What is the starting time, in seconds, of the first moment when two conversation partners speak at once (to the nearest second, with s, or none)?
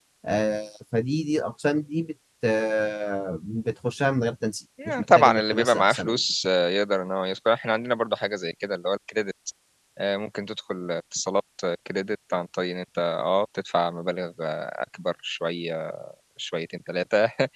5 s